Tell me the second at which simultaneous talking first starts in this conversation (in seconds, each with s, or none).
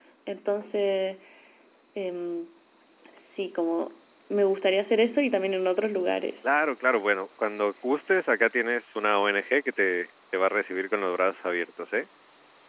none